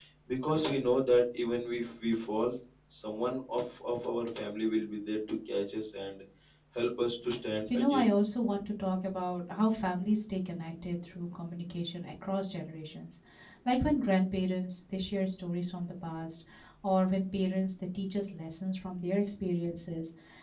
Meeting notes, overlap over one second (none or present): none